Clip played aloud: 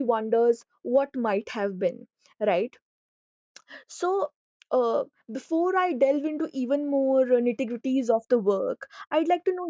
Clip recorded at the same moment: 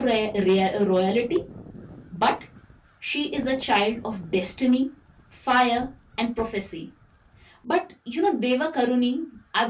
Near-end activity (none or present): present